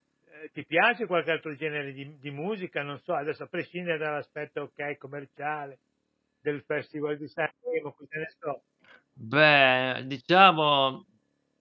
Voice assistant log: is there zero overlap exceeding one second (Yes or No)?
Yes